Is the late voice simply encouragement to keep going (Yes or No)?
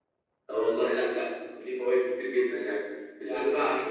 Yes